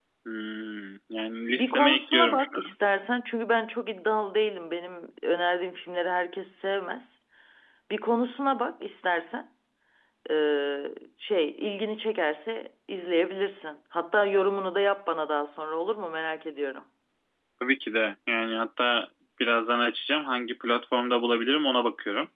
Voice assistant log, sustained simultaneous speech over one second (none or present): present